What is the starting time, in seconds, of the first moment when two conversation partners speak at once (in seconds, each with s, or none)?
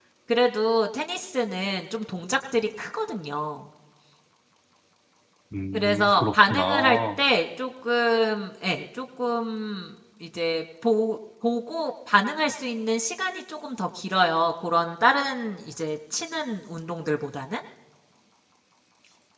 5.7 s